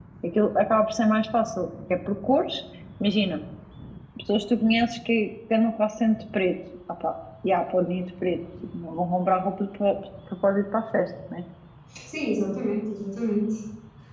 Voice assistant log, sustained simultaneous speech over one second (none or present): none